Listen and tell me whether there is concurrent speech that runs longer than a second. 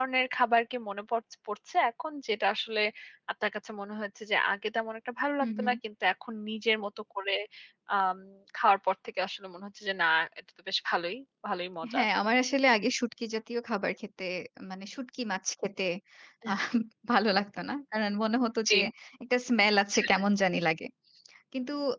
No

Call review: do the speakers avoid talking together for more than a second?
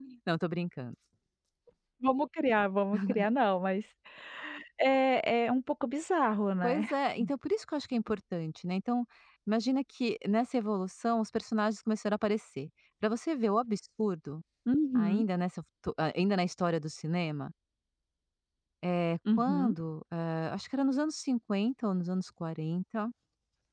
Yes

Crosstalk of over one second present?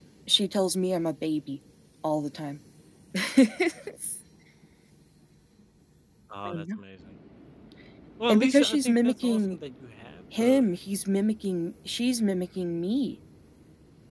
Yes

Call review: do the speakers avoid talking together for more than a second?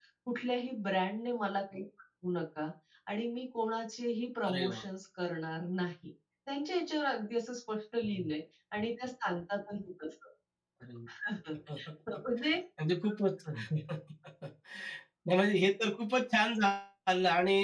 Yes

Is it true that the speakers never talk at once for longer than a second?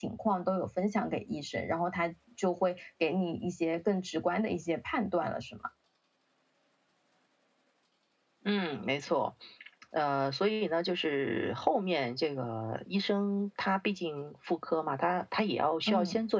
Yes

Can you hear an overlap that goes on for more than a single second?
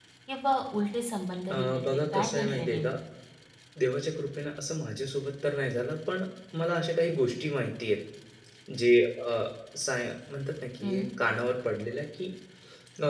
Yes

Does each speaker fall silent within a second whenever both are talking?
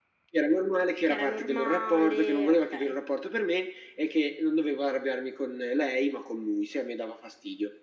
No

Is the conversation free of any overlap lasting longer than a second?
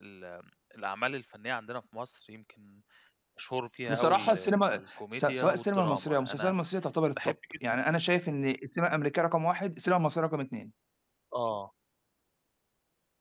No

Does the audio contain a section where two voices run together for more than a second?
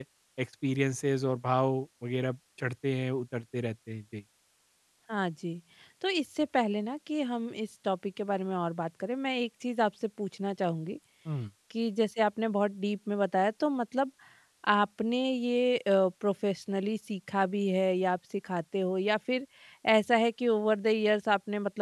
No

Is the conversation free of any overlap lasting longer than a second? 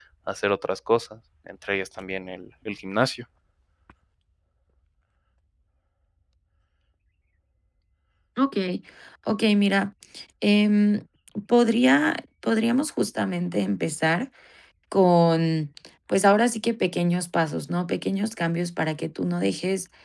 Yes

